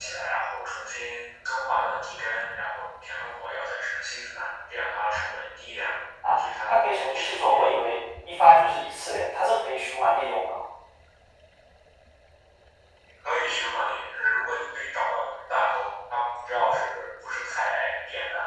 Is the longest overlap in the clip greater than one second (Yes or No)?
Yes